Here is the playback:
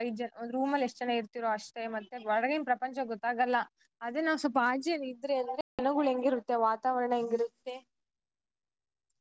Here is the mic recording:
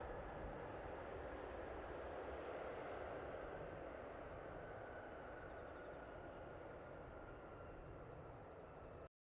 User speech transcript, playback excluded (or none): none